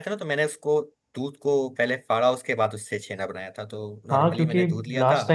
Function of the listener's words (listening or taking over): taking over